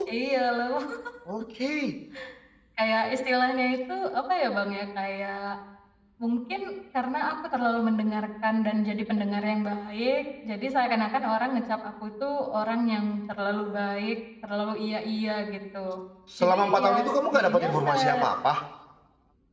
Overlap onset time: 16.4 s

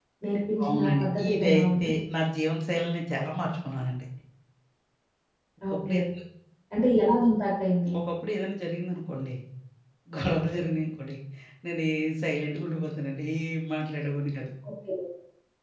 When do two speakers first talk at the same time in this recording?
0.6 s

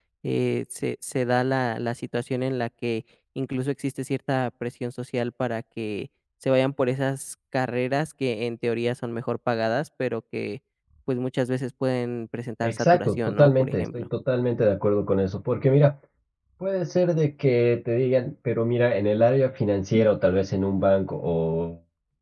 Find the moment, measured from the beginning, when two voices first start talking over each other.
12.6 s

